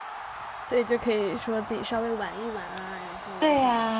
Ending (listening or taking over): taking over